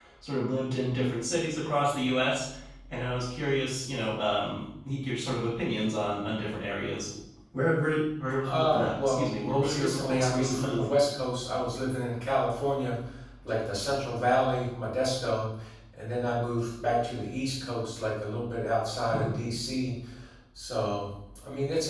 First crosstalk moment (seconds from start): 8 s

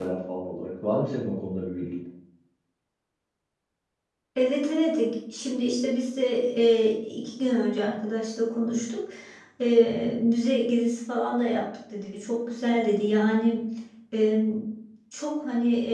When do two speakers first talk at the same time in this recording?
none

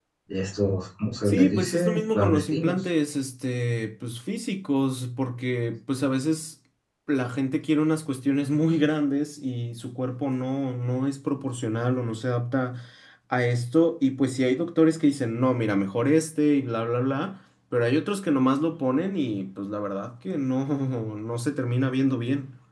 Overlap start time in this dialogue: 1 s

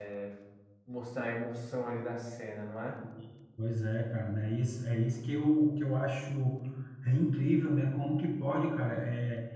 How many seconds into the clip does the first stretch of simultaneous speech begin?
none

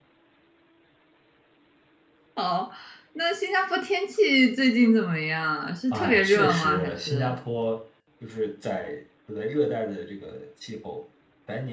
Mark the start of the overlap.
6 s

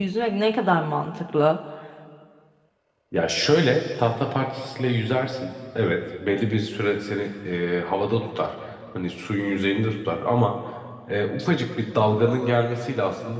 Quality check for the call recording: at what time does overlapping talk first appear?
none

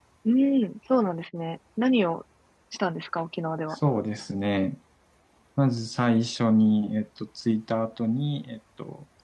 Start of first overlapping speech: none

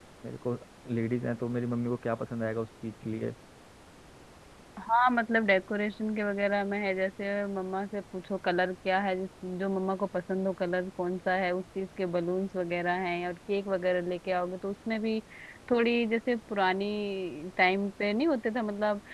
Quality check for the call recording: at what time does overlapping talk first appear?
none

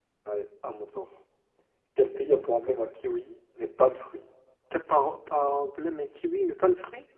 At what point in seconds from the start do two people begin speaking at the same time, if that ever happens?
none

